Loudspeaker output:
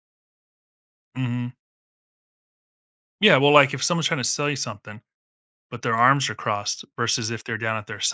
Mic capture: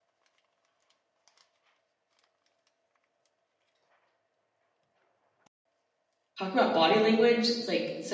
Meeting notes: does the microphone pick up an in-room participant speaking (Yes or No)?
Yes